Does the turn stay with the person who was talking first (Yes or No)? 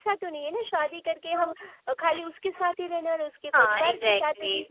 No